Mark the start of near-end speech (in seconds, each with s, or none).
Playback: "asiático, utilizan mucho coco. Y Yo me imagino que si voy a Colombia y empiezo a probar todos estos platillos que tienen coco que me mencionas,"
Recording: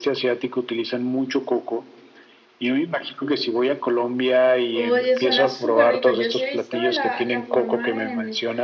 4.7 s